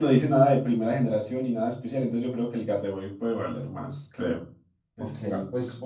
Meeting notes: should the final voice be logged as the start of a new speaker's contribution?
Yes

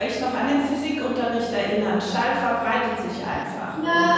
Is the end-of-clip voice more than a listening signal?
Yes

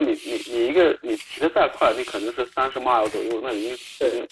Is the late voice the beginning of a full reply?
No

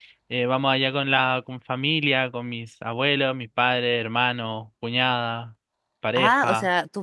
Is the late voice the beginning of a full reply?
Yes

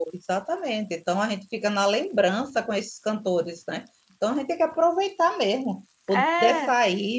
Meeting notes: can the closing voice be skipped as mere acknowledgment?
Yes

